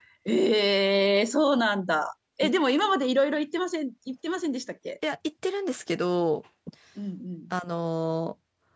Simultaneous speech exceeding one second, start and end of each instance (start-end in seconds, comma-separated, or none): none